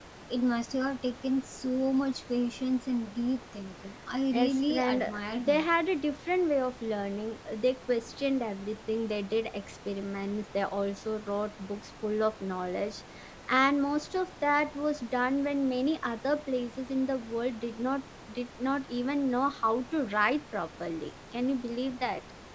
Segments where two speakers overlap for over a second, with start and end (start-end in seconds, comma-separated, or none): 4.3-5.7